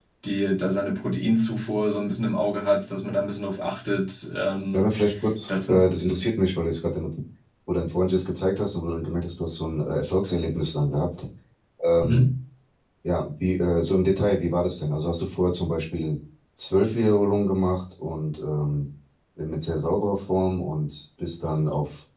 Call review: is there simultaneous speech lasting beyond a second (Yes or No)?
No